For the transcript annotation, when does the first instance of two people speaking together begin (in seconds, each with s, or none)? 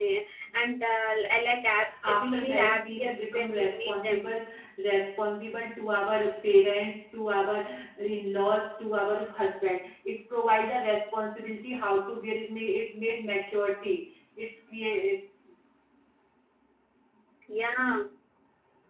1.8 s